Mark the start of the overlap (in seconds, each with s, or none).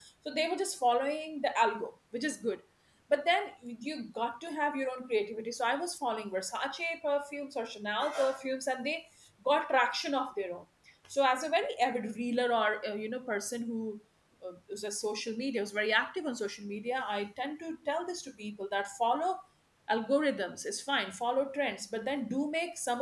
none